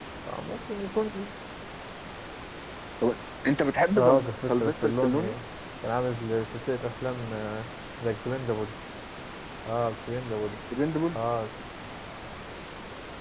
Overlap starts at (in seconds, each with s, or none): 3.9 s